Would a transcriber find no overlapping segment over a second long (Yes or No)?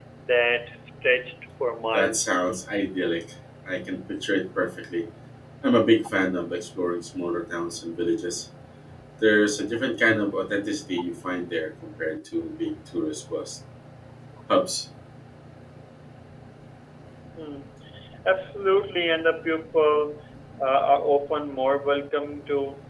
Yes